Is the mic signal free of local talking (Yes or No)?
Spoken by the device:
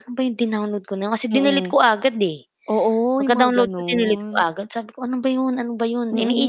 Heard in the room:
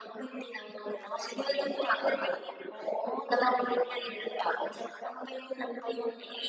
Yes